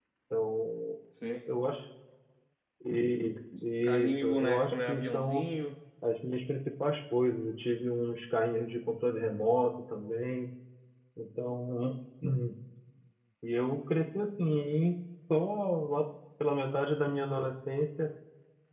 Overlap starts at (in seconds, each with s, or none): 4.0 s